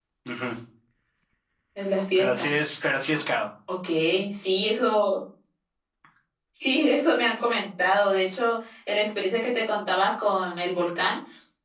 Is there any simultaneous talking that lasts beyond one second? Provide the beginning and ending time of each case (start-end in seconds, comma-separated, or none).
none